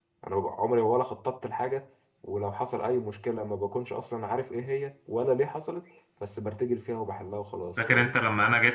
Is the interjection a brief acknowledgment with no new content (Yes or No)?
No